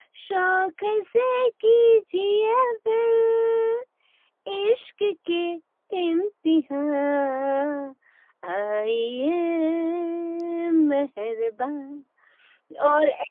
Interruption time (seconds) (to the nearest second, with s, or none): none